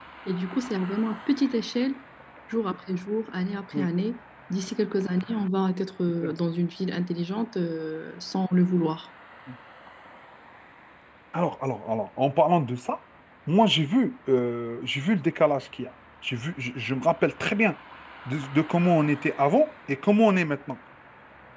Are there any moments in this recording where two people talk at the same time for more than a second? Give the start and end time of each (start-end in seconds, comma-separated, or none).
none